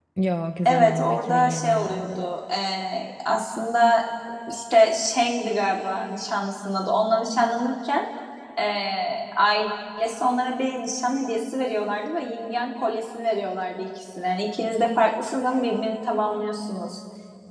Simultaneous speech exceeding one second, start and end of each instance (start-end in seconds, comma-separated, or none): 0.7-2.2